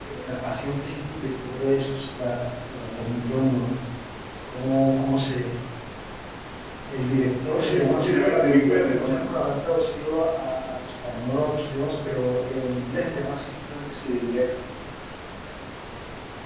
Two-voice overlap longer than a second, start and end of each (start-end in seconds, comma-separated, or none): 7.6-9.3